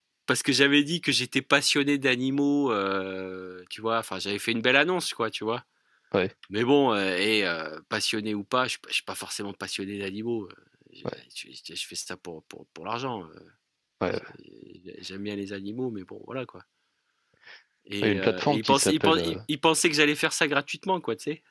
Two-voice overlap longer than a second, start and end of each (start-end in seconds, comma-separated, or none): 18.0-19.4